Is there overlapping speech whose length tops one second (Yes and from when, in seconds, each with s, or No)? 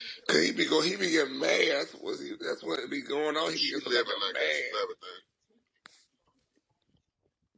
Yes, from 3.5 s